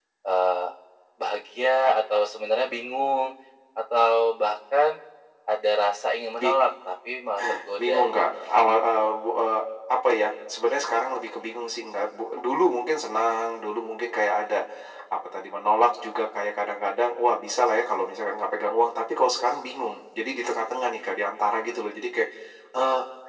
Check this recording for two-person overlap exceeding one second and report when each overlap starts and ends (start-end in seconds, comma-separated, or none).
none